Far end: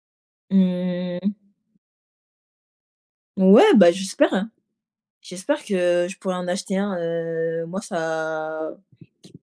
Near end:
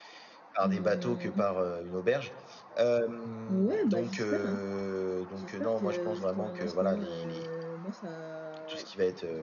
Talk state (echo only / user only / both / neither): both